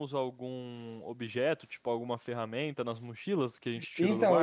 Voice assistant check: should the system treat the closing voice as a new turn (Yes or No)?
Yes